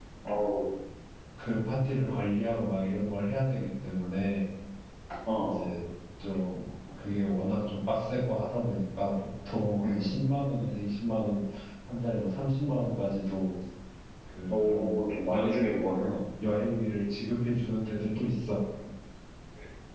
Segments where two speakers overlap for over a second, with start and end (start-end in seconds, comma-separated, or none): 14.5-16.1